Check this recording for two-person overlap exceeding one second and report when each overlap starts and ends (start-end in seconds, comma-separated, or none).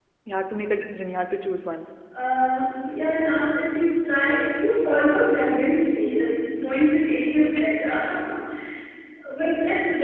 none